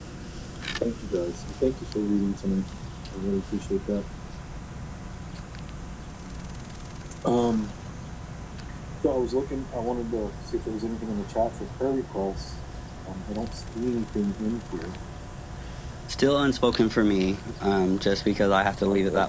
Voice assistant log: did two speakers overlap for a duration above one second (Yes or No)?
No